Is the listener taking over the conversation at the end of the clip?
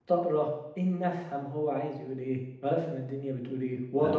No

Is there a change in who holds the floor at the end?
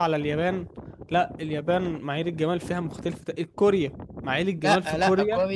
Yes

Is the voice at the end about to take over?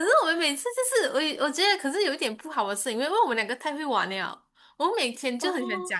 No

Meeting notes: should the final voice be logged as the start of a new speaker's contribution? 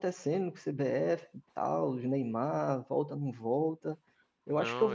No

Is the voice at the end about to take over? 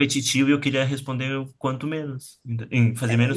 Yes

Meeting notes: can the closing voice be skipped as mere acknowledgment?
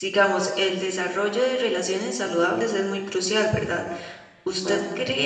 Yes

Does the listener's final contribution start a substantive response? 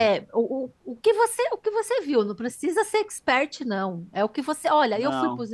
No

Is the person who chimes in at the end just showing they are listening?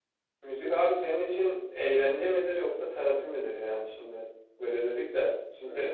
Yes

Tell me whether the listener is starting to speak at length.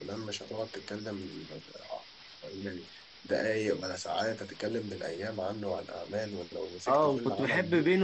Yes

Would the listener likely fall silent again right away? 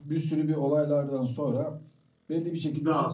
Yes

